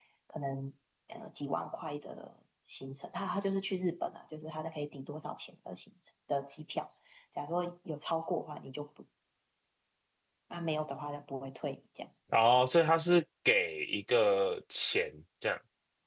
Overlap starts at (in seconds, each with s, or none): none